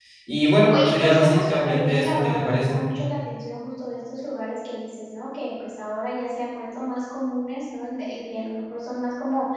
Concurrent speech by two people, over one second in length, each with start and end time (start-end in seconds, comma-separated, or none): 0.7-2.8